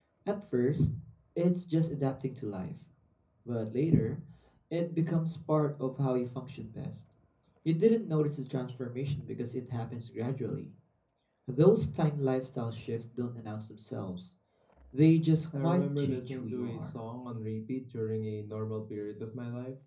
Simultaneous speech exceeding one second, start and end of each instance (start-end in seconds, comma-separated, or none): 15.6-16.9